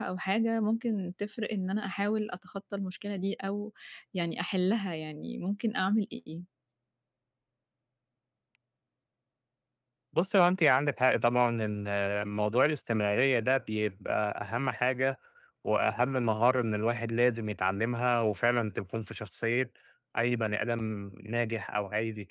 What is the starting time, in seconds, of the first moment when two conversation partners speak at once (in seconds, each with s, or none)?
none